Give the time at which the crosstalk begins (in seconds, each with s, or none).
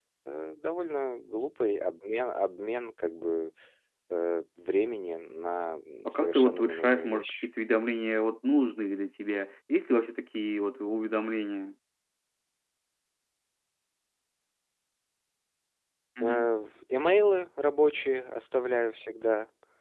6.0 s